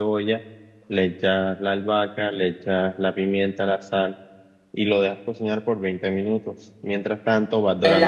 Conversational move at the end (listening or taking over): taking over